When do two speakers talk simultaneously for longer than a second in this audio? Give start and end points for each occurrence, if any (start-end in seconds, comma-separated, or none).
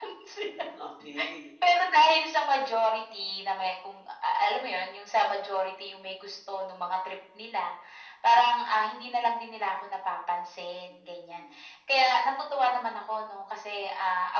none